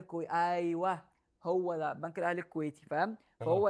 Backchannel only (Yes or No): Yes